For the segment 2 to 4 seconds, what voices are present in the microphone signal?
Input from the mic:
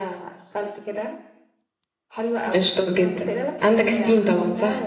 both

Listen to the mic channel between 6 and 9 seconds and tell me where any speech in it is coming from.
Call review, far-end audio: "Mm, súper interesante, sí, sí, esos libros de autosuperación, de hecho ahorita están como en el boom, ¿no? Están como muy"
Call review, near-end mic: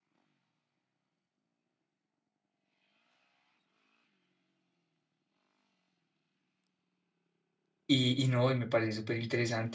user only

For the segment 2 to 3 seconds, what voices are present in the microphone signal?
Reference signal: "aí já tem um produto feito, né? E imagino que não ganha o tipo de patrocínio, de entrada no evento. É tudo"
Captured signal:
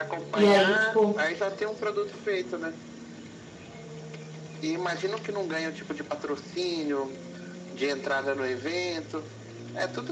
echo only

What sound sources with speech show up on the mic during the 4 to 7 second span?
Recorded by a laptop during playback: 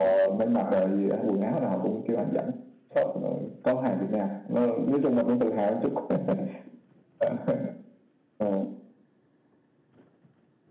echo only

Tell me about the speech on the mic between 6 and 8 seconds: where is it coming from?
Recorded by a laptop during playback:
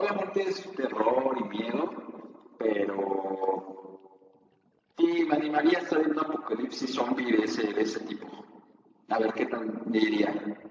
echo only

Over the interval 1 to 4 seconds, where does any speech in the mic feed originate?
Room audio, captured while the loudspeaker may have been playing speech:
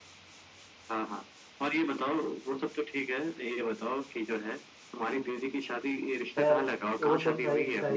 echo only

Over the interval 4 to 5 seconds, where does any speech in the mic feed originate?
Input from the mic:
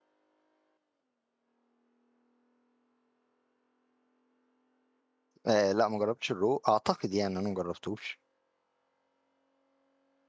neither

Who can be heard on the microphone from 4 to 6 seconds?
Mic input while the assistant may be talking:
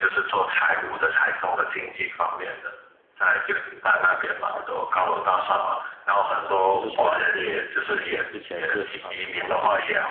echo only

